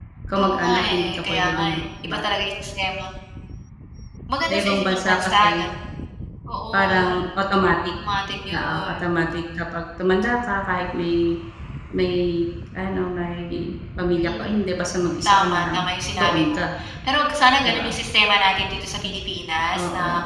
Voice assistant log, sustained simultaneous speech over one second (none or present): present